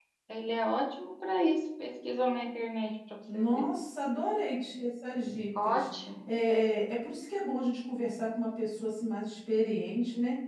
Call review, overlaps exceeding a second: none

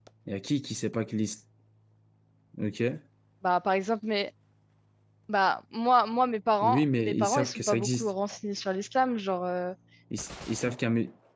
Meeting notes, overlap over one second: present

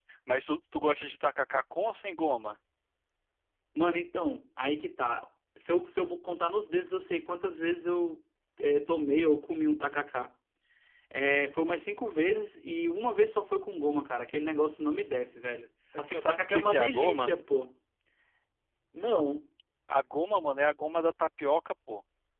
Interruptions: present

